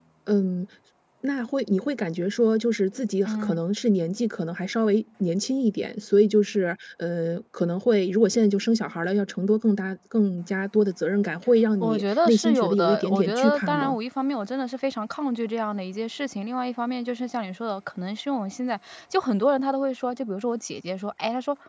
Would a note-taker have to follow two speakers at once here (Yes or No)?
Yes